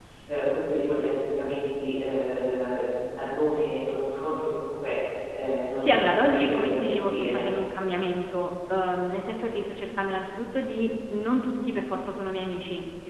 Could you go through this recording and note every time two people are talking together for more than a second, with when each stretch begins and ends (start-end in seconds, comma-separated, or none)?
5.8-7.4